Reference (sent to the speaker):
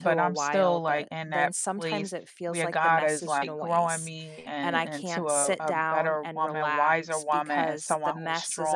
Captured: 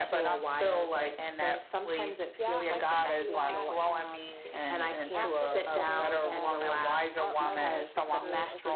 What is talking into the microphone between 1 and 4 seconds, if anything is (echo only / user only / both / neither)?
both